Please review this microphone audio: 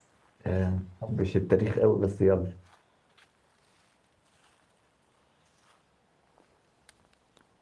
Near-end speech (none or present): present